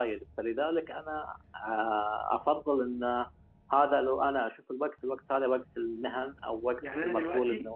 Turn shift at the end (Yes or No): Yes